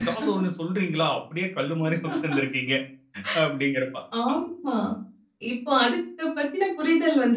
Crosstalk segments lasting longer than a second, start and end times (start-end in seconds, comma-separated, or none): none